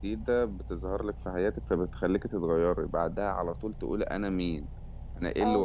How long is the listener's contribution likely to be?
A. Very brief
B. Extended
B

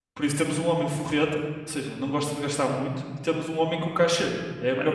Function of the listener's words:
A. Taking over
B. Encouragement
A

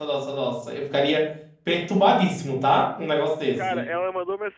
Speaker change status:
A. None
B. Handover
B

